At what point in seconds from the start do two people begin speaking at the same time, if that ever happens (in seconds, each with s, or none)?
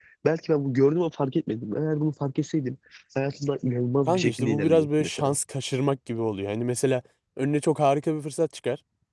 4.1 s